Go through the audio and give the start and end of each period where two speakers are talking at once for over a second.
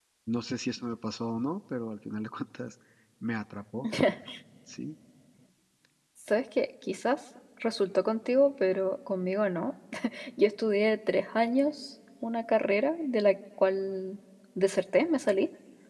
none

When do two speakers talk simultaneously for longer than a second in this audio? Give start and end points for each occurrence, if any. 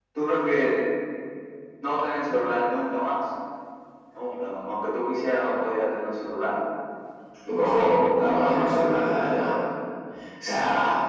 7.6-9.5

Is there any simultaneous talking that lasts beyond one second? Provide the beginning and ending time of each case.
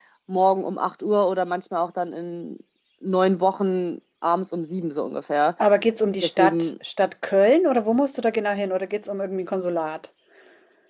none

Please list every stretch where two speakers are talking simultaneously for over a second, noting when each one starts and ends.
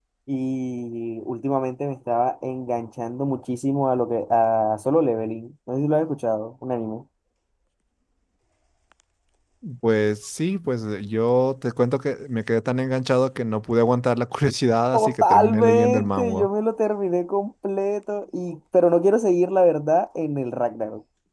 14.9-16.5

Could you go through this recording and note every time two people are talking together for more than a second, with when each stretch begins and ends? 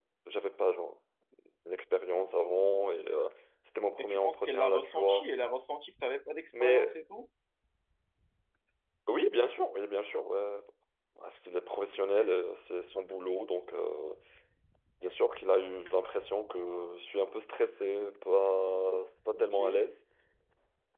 4.0-5.3

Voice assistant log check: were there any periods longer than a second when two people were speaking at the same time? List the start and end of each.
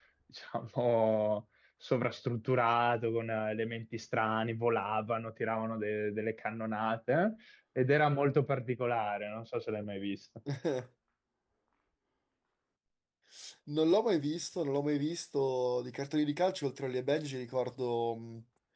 none

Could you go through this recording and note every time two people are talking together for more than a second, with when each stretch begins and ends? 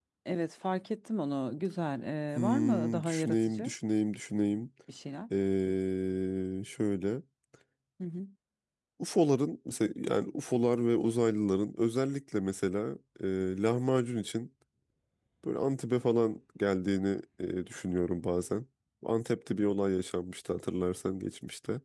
2.4-3.7

